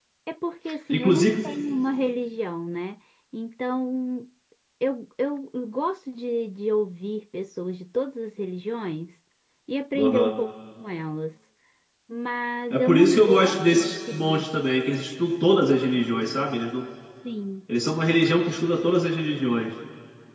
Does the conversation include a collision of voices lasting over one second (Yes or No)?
Yes